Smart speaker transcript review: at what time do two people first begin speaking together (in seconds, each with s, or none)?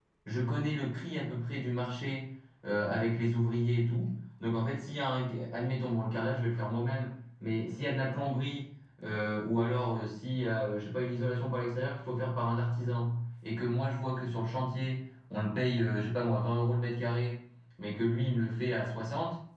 none